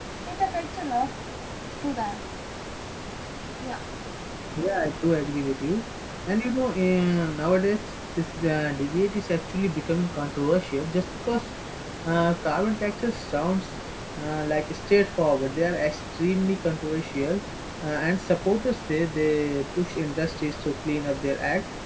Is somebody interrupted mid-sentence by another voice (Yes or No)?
No